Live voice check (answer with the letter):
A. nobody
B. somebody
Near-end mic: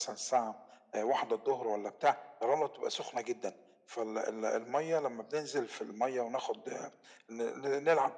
A